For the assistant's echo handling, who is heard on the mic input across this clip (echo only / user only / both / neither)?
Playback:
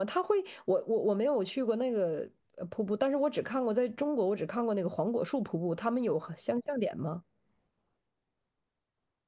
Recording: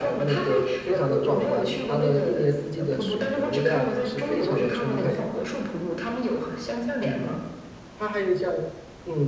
both